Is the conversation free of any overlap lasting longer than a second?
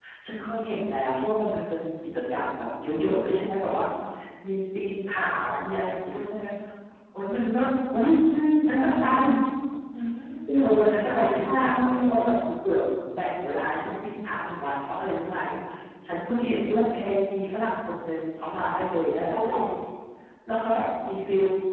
No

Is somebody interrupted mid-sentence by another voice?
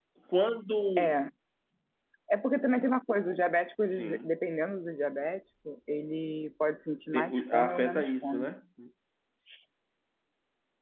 Yes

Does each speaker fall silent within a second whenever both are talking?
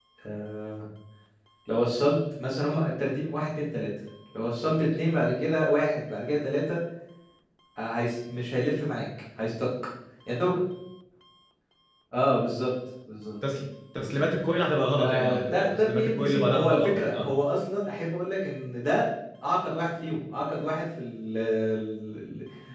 No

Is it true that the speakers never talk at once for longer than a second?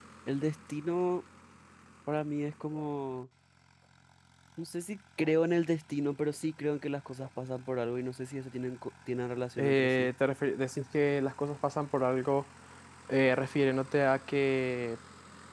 Yes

